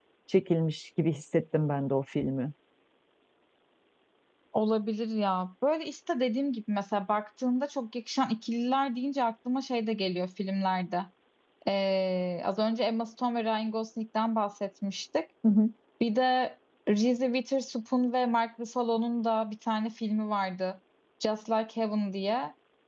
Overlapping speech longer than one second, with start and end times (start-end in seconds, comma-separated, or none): none